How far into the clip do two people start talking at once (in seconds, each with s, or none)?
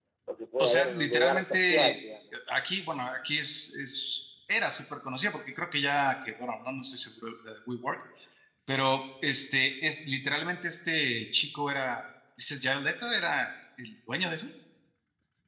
0.6 s